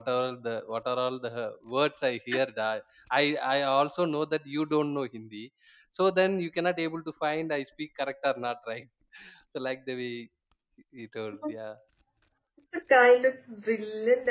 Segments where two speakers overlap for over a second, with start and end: none

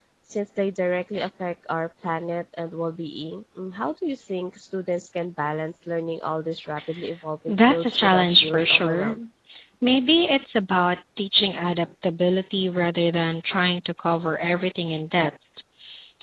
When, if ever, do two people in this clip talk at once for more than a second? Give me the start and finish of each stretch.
7.5-9.2

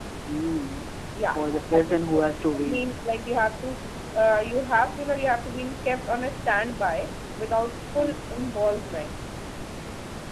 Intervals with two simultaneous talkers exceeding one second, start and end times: 1.4-2.8

